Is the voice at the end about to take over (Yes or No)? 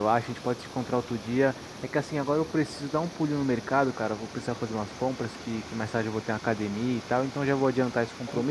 No